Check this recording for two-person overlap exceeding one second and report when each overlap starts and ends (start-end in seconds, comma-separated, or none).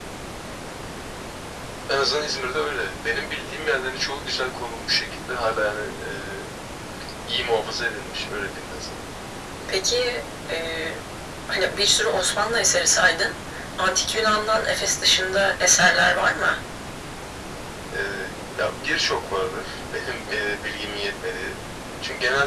none